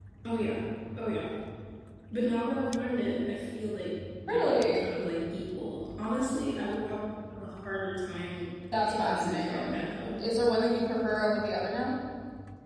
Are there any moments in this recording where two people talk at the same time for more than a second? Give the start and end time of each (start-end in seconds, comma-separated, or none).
8.8-10.1